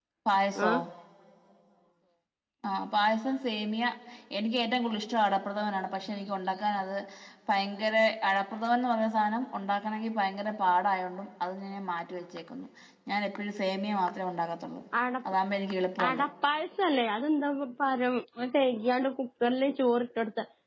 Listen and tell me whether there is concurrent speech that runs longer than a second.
No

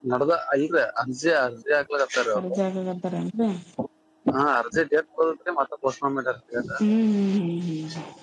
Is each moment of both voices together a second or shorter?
Yes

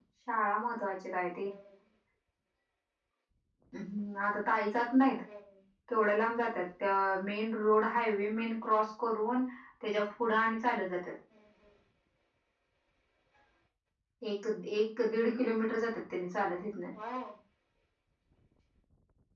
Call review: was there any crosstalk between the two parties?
No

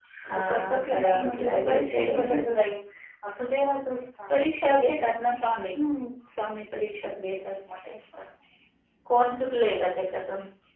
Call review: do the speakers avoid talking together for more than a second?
No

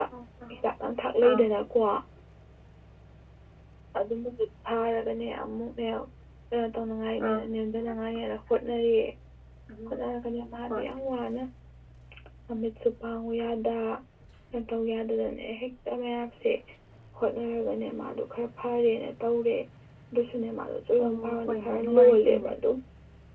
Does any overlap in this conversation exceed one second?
Yes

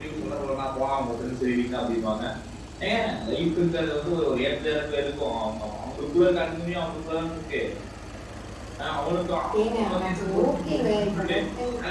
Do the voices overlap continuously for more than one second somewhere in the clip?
Yes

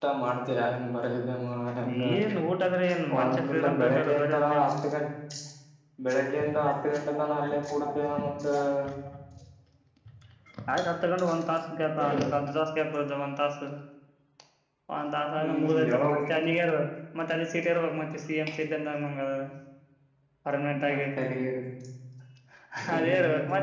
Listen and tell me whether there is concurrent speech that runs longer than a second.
Yes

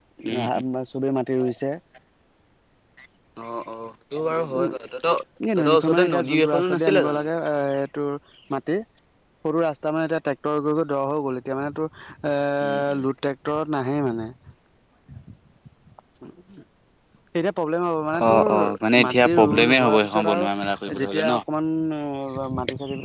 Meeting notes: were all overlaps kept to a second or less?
No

